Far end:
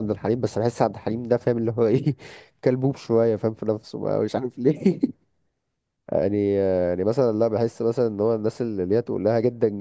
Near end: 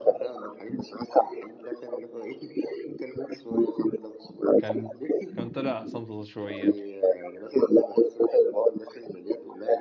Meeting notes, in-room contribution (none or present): present